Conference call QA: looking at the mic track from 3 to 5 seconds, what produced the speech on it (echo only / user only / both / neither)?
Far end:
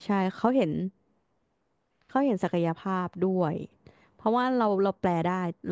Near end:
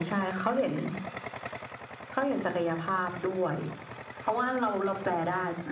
echo only